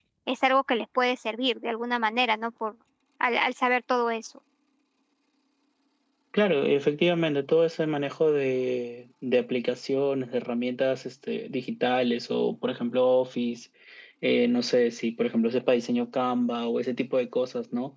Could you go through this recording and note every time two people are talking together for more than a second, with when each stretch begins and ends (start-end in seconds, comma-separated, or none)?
none